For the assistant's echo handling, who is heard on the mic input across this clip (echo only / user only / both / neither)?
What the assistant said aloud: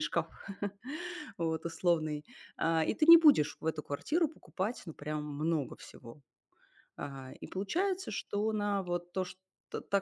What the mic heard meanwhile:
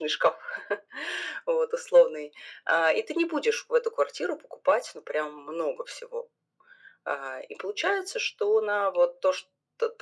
echo only